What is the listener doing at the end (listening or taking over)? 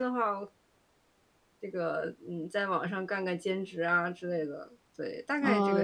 taking over